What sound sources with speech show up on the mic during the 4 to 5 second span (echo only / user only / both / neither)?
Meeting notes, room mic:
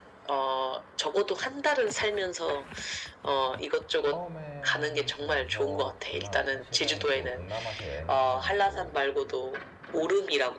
both